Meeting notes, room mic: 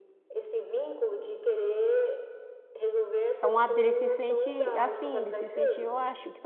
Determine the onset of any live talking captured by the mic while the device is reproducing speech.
3 s

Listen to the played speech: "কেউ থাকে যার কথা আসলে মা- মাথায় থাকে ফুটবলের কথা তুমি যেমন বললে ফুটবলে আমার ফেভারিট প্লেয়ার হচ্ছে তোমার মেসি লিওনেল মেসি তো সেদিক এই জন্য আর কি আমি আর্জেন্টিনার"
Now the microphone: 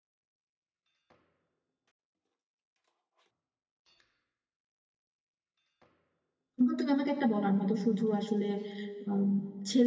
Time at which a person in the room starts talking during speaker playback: 7 s

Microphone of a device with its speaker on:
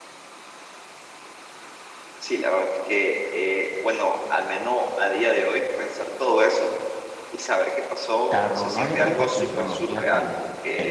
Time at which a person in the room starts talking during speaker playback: 8 s

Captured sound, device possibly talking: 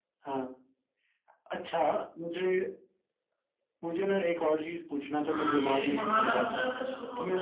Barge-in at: 5 s

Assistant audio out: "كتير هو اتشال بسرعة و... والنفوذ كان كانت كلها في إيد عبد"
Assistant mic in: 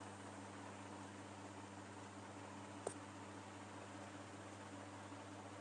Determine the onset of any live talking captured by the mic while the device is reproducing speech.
none

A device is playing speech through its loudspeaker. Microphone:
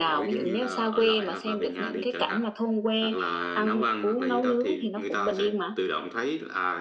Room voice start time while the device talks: none

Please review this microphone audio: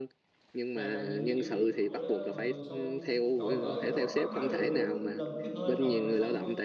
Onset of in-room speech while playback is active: 1 s

